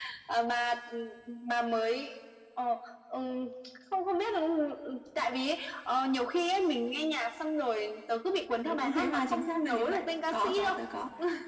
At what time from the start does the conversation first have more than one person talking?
8.7 s

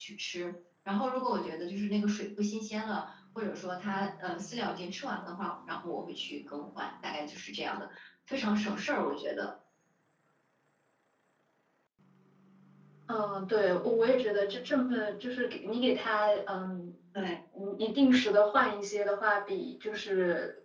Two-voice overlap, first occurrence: none

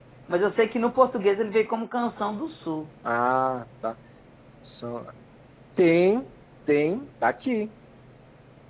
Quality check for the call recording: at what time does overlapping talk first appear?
none

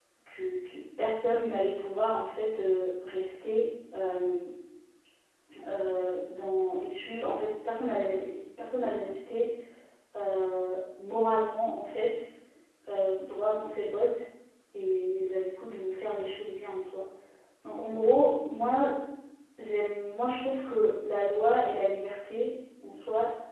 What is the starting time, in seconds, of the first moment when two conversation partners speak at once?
none

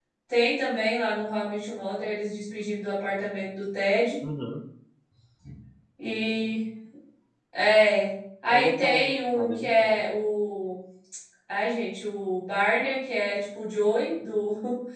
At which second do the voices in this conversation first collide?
8.5 s

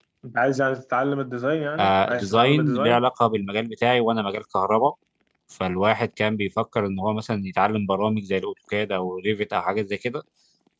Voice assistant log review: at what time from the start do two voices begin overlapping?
1.8 s

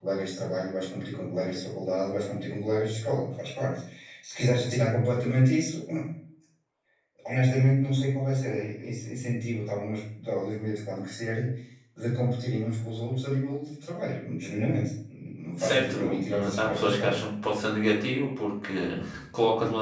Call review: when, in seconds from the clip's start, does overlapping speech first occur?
15.6 s

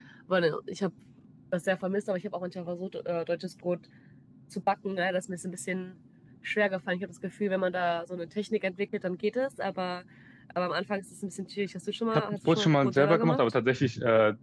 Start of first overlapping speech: 12.1 s

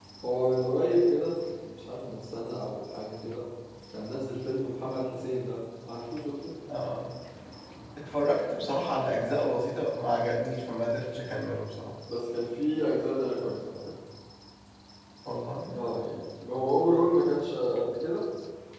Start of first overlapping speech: none

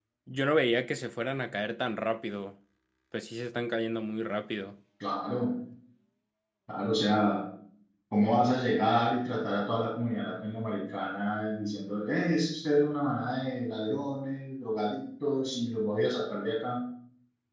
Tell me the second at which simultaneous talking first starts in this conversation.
none

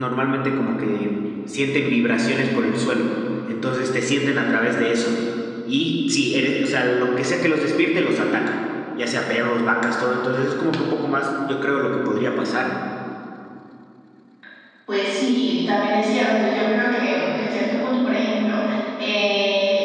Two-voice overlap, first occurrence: none

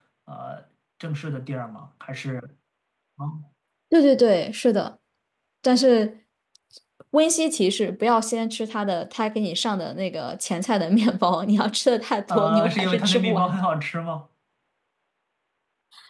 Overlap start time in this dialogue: 12.3 s

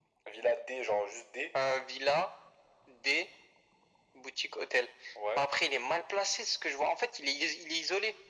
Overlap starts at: none

